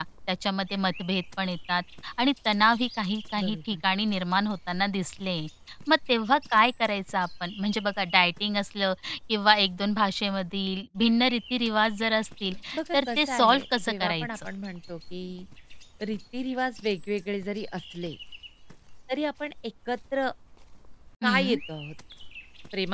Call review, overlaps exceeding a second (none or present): present